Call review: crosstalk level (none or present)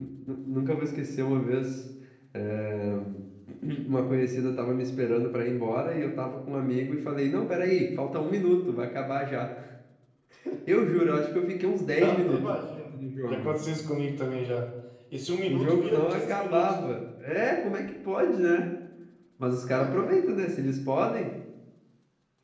present